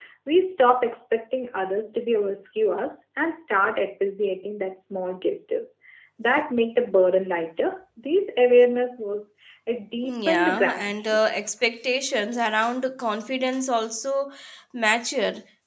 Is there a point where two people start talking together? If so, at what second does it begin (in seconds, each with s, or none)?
10.0 s